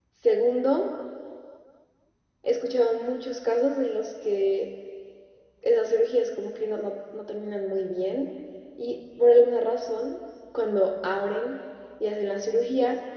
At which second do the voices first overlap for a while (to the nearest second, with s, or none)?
none